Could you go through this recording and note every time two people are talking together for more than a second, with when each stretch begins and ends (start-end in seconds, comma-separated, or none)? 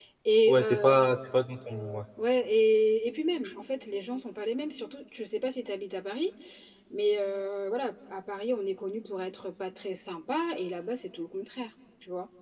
none